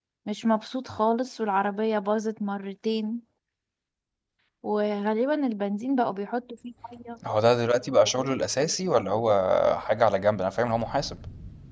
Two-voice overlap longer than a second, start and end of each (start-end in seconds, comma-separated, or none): none